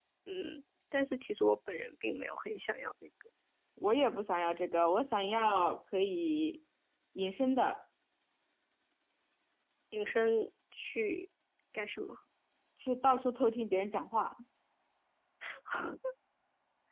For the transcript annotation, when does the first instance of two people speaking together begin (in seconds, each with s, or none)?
none